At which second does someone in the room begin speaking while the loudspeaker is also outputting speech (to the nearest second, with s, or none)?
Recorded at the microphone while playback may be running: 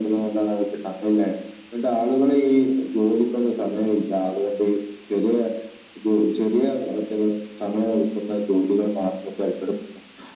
none